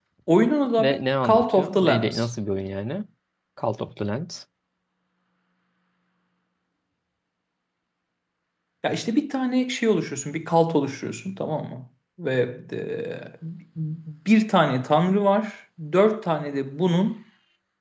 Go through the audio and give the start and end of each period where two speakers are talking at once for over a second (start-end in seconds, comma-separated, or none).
0.8-2.3